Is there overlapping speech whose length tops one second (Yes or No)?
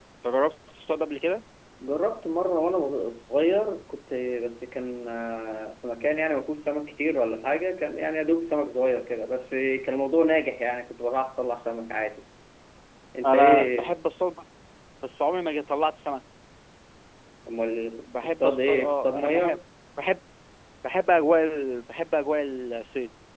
Yes